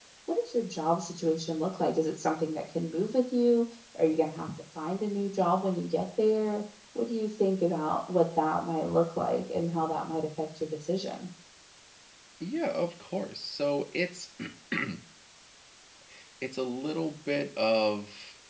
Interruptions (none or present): none